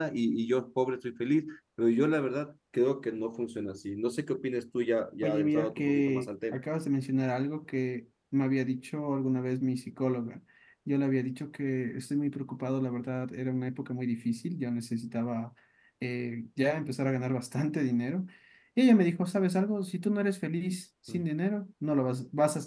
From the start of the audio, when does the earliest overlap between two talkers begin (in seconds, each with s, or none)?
5.2 s